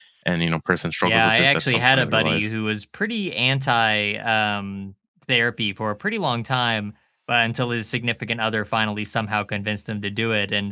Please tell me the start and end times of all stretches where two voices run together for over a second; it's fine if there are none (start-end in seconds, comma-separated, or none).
1.0-2.5